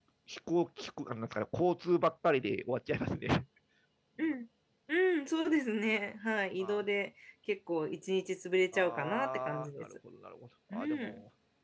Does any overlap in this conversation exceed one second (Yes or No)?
Yes